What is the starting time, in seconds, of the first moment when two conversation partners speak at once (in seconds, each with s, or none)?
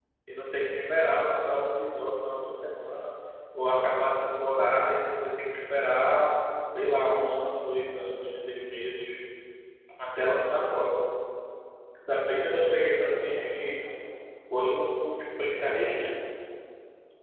12.3 s